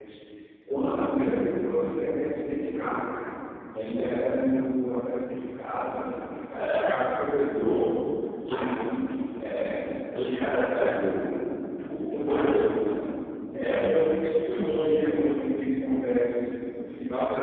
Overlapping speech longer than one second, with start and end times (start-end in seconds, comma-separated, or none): none